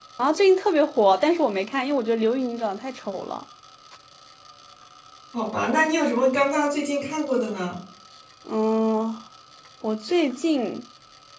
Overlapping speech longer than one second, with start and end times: none

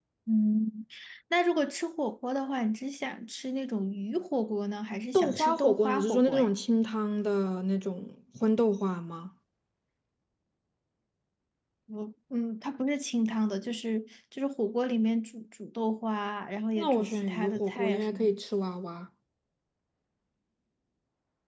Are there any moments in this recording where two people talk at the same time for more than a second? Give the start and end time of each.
5.1-6.5, 16.8-18.3

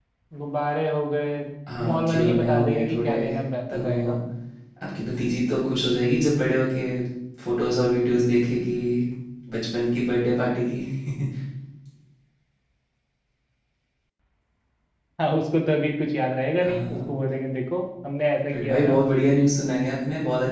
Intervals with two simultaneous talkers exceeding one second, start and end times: 1.9-3.1

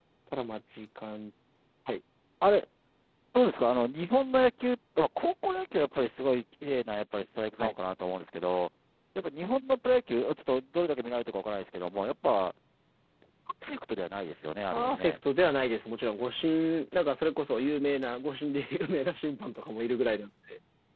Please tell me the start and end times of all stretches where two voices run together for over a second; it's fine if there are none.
none

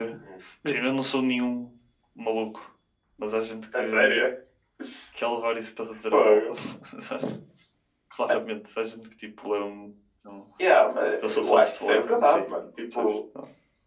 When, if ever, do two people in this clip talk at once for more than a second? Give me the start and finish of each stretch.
11.2-12.5

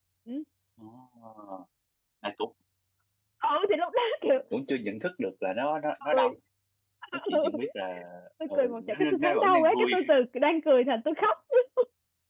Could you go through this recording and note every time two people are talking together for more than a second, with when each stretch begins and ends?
8.6-9.9

